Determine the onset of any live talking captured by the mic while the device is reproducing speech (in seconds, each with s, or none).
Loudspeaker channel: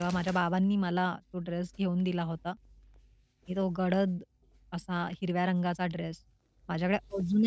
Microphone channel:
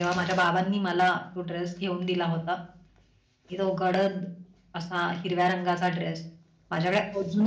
none